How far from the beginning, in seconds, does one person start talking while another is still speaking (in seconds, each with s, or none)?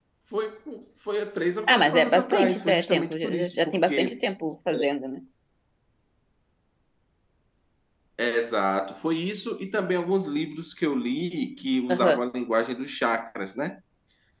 1.7 s